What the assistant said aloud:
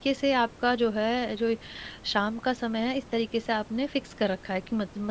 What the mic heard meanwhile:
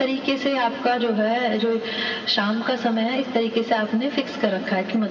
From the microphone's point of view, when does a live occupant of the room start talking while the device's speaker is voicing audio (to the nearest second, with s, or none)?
none